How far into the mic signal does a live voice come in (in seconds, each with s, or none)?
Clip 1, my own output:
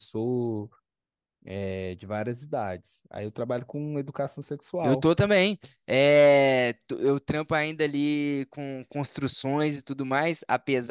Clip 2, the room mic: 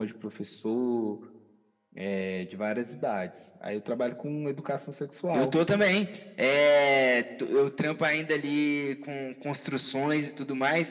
none